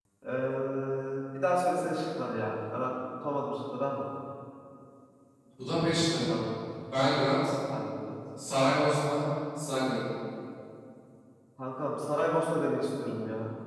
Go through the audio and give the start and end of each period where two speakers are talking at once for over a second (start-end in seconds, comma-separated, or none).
none